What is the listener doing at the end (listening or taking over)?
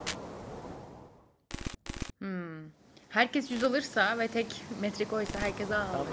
taking over